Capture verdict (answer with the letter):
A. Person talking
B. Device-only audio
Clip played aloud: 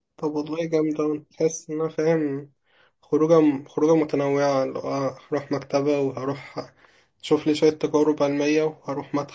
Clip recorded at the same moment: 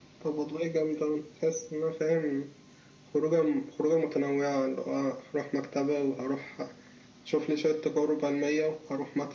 B